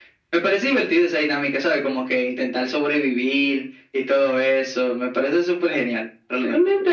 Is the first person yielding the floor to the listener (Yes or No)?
Yes